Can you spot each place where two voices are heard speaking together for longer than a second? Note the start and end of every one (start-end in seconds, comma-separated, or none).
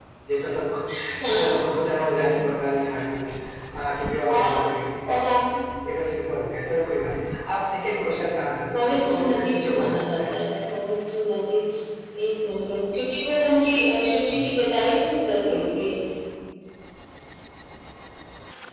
8.7-10.3